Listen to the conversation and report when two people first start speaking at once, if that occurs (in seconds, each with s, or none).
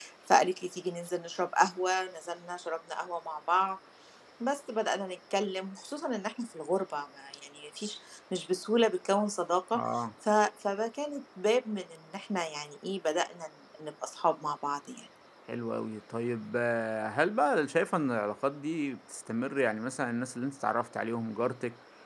none